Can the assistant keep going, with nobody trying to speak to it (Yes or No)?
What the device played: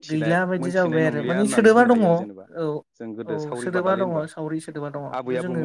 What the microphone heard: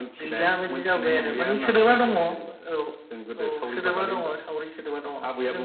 Yes